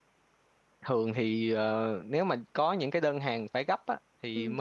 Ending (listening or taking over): listening